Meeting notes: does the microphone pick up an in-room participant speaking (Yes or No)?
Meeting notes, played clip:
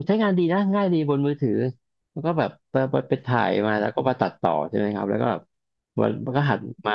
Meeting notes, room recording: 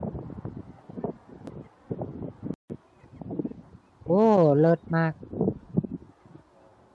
Yes